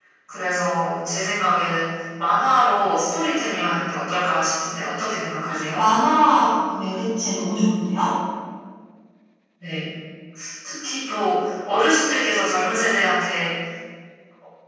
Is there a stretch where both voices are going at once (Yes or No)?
No